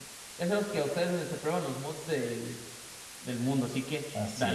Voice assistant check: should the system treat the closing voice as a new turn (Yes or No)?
Yes